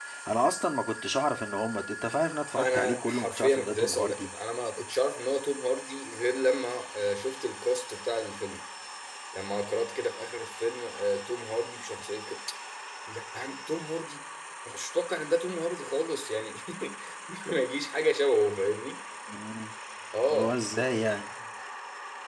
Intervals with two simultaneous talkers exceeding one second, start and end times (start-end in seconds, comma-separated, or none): 2.5-4.3